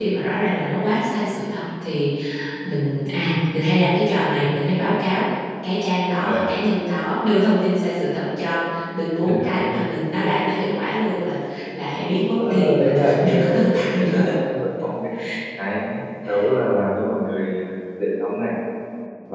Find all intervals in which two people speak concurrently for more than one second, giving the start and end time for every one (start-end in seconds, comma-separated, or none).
12.4-14.4